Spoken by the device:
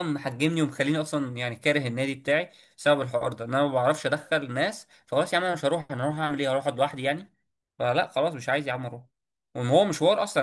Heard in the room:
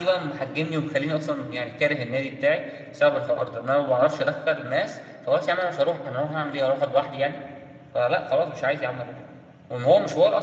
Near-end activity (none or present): none